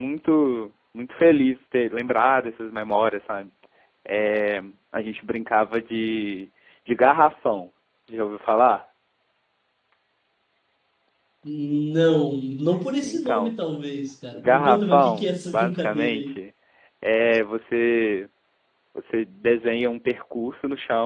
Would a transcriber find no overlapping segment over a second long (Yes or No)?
No